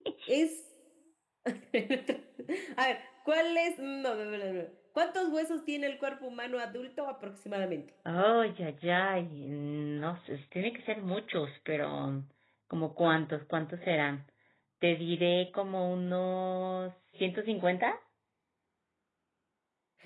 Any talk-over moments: No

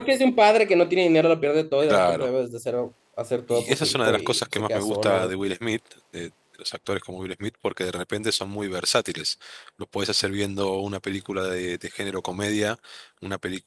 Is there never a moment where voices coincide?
No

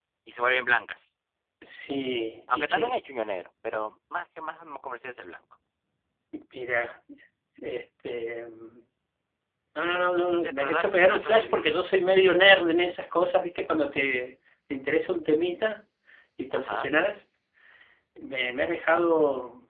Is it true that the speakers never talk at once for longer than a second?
No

